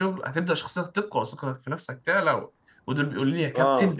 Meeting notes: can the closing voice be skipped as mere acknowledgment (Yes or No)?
Yes